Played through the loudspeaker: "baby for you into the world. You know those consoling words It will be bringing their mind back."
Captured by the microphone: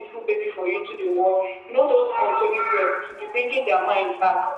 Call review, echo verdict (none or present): present